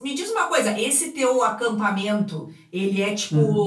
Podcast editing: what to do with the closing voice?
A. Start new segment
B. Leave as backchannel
B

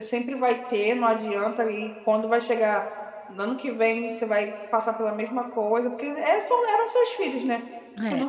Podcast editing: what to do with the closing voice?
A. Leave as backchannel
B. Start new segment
A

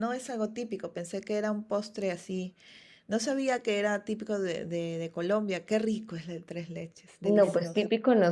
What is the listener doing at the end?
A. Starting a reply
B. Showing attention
A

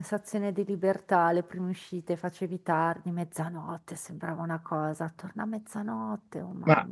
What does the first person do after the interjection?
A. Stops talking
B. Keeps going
A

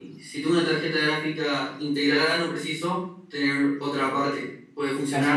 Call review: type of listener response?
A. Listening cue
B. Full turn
B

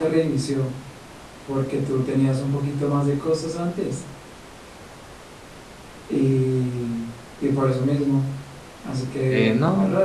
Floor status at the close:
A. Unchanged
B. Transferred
B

